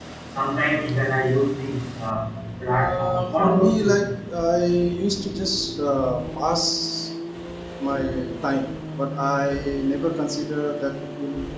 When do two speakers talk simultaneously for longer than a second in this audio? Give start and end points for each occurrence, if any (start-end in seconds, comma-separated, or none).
2.6-4.0